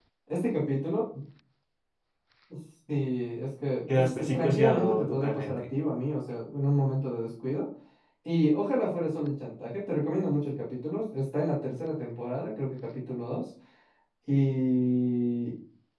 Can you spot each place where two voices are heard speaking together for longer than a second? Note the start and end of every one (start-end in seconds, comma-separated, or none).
3.9-5.6